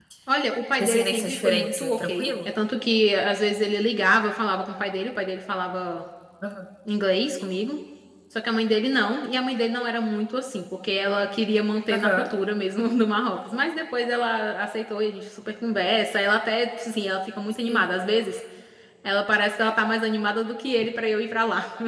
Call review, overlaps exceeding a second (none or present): present